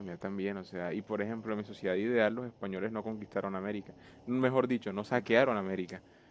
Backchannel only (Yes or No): Yes